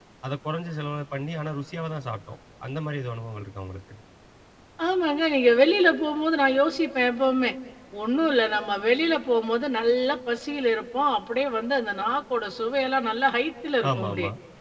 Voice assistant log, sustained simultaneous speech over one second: none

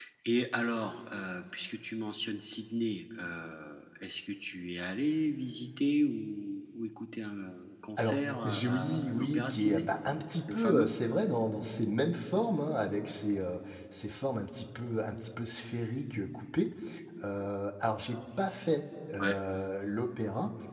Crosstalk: present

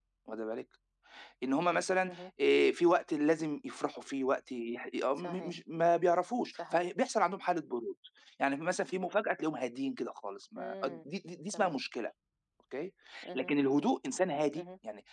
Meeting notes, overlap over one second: none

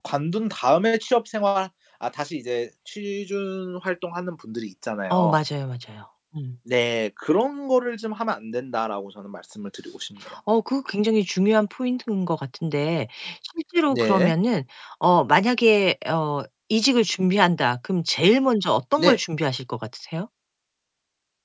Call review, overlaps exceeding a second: none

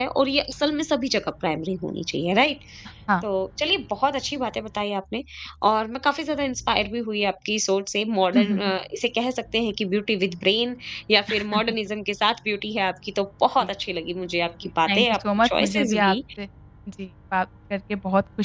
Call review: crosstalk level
present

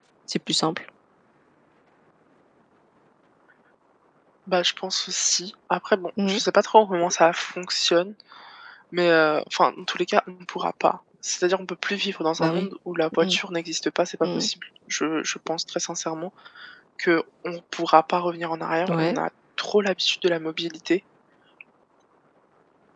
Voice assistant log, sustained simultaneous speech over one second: none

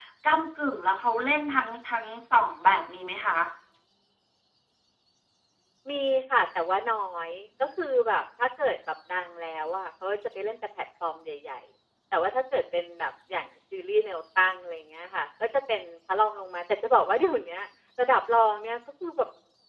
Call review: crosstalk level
none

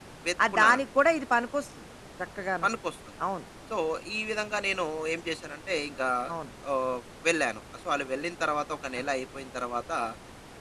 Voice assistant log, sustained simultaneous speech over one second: none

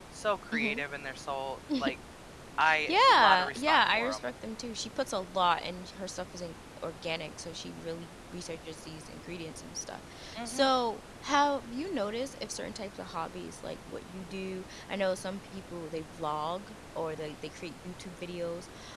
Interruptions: present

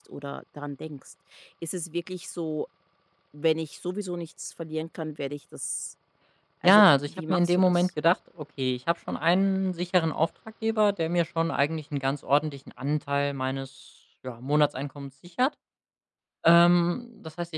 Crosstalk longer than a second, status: present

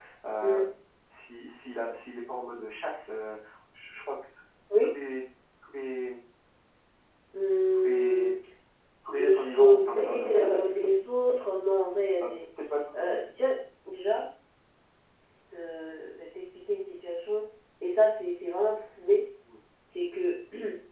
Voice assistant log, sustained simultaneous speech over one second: present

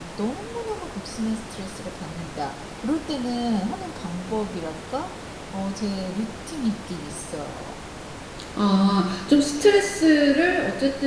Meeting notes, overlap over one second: none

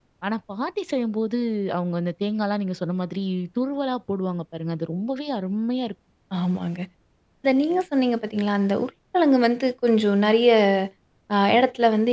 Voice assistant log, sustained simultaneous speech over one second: none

